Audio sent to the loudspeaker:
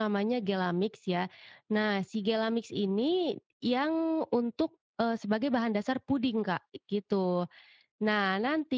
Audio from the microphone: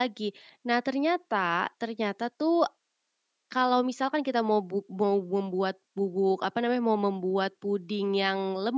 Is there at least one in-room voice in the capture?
Yes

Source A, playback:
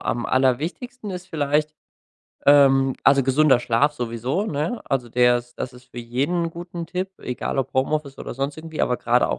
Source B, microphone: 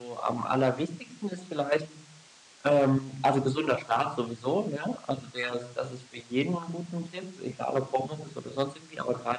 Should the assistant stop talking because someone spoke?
No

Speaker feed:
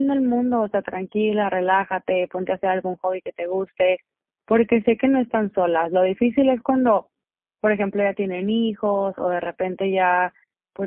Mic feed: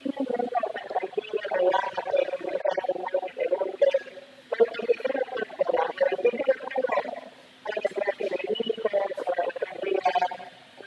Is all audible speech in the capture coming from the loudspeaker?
Yes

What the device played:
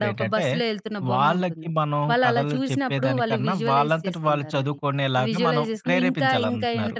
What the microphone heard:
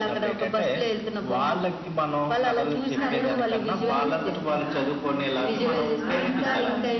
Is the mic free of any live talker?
No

